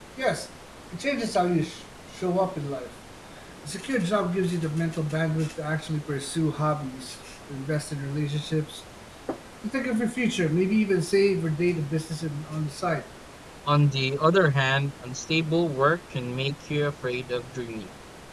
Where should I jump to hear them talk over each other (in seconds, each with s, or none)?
none